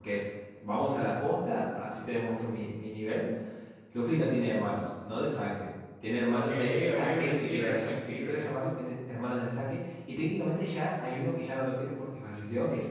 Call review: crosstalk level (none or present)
present